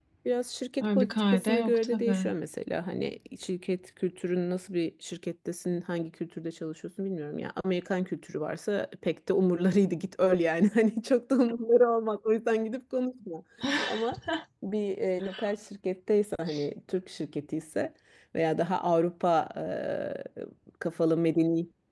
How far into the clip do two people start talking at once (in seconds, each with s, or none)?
0.8 s